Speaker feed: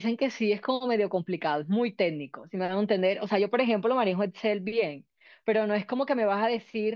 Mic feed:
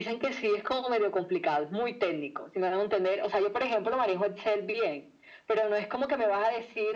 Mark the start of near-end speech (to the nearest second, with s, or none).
none